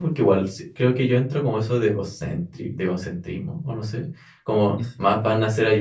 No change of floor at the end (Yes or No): Yes